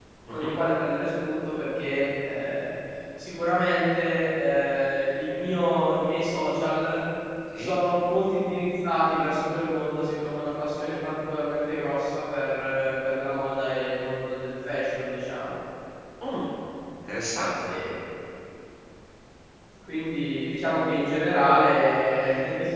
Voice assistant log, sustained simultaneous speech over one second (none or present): none